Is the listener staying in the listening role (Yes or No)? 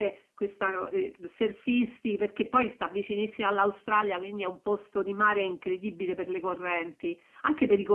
Yes